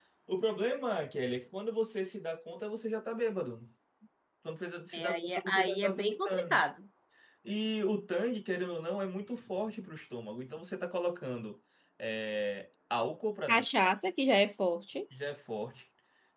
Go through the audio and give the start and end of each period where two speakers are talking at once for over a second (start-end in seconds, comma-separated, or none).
4.9-6.6